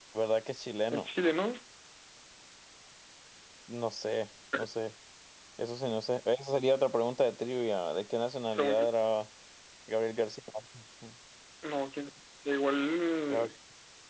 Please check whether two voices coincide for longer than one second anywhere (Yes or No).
No